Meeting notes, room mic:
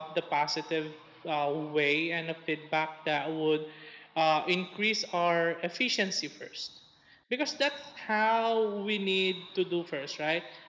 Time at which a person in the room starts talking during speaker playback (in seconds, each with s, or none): none